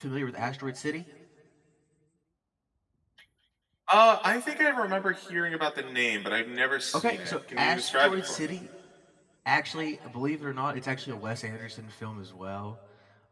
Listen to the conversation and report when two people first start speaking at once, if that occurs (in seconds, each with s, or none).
6.9 s